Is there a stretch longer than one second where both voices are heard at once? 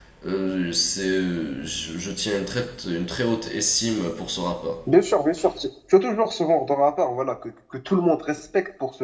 No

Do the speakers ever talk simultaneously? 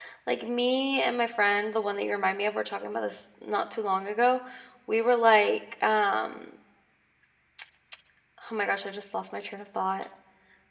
No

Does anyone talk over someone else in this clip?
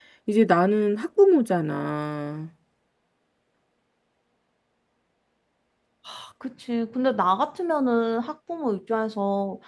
No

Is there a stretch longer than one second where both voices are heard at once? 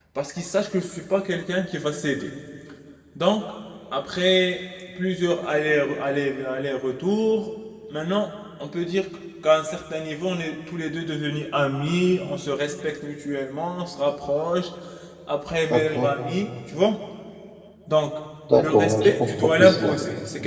Yes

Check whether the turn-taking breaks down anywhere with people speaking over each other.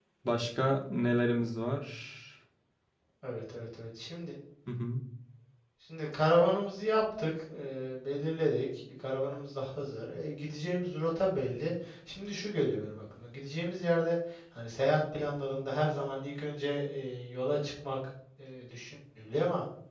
No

